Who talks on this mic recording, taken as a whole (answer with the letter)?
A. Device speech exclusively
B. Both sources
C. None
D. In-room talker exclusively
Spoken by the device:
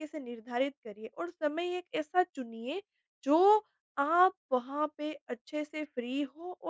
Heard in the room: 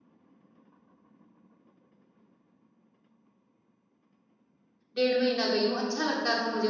D